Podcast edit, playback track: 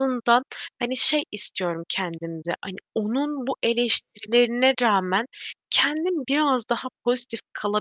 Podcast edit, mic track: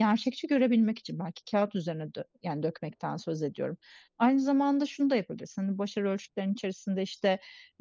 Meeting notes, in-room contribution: present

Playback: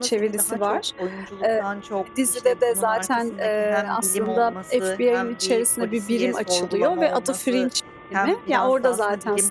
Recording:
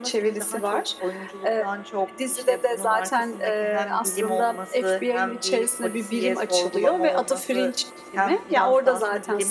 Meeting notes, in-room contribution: none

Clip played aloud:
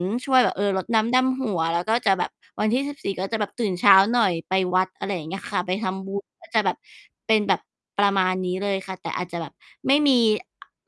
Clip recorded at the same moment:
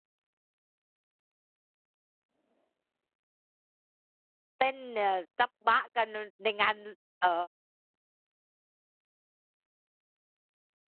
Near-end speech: present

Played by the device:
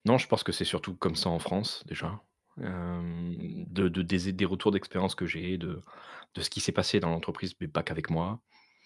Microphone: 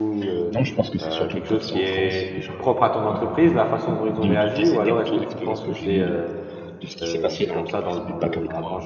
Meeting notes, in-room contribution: present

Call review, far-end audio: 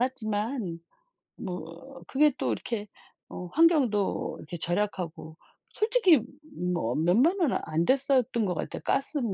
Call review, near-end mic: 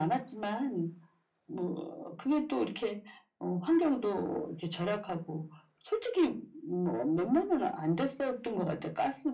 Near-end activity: none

